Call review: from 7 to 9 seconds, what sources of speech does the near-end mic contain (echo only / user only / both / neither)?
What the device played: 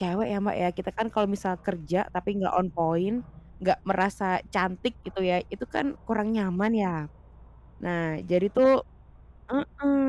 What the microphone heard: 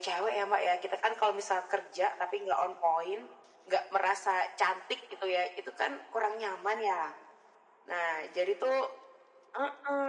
echo only